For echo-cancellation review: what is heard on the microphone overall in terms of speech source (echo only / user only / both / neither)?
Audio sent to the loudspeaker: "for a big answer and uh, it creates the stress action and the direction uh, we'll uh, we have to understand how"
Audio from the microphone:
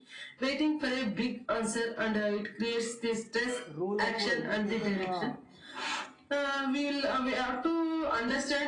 both